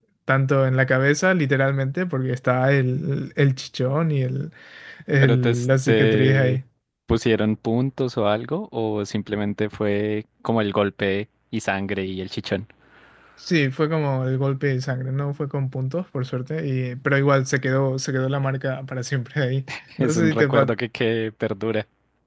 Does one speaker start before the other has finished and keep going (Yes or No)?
Yes